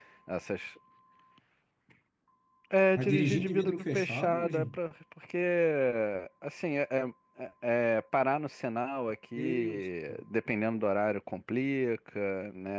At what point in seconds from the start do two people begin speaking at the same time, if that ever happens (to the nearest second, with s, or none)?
3 s